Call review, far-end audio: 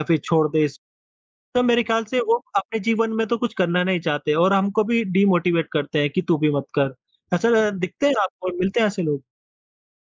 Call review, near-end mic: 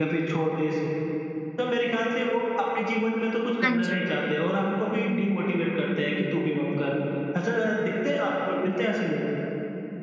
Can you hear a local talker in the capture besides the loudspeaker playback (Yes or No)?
Yes